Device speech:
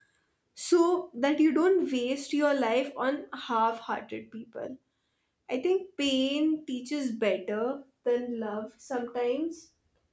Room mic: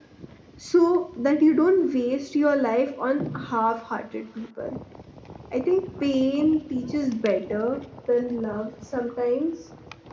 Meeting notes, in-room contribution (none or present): none